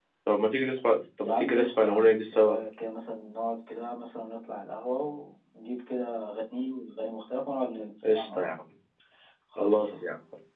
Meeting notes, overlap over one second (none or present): present